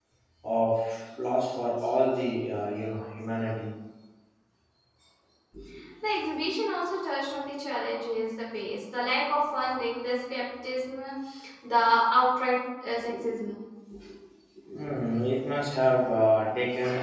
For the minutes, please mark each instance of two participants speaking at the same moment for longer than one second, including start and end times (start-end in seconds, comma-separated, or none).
none